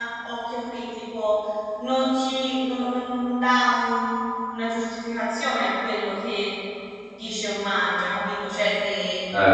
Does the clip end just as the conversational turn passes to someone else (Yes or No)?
No